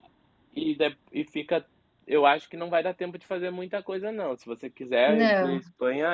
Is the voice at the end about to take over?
No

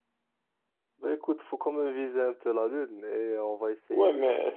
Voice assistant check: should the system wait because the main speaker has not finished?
No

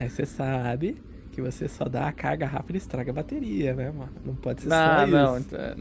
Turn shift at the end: Yes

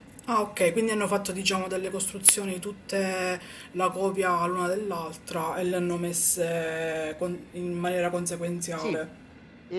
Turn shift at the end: Yes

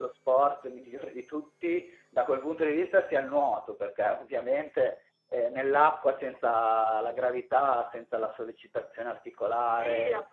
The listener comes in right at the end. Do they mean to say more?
Yes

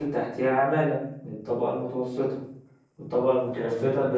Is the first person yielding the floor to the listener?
No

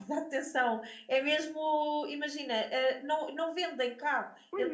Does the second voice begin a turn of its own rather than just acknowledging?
No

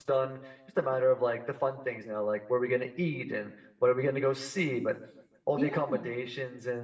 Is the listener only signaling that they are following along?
Yes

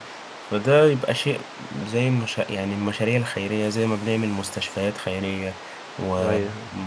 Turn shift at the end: No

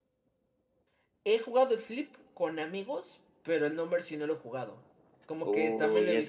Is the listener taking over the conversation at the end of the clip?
Yes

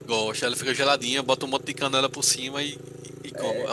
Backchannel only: No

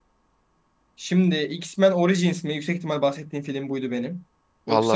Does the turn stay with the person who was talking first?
Yes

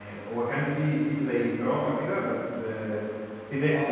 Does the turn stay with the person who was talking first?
No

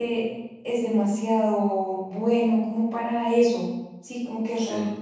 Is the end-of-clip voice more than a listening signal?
No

